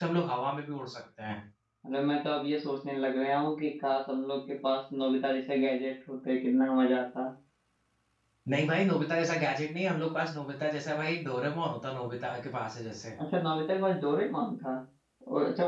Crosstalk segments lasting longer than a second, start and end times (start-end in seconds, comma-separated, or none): none